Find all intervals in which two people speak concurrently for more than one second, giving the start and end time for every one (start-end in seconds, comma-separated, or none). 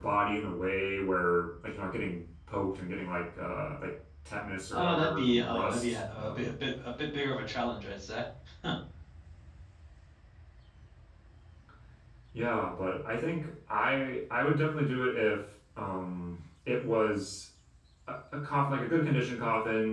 4.7-6.5